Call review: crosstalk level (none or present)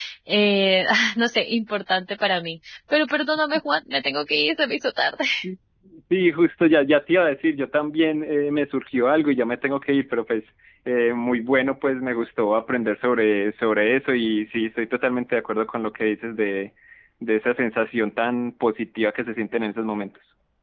none